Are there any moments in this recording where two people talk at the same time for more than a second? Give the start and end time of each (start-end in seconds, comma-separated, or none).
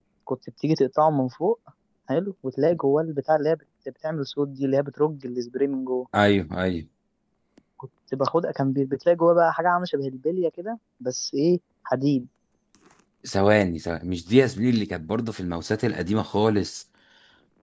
none